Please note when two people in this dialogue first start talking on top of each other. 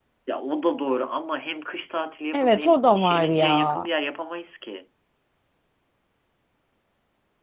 2.3 s

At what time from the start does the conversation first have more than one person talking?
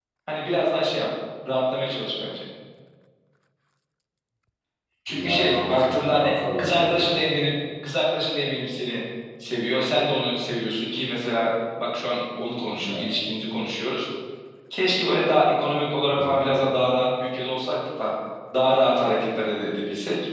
5.1 s

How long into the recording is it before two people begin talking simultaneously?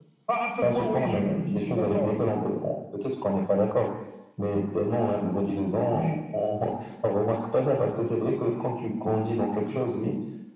0.6 s

